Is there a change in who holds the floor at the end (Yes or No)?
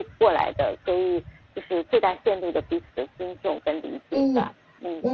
Yes